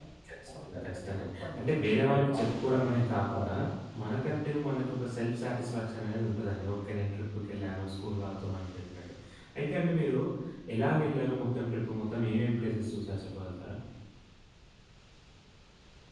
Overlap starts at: 0.7 s

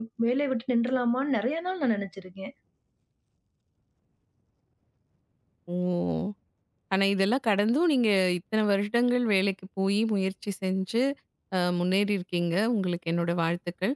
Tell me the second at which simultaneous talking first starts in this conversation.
none

